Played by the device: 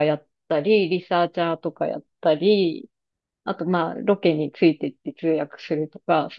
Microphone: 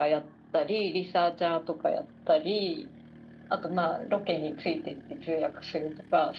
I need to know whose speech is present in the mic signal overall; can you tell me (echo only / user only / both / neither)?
echo only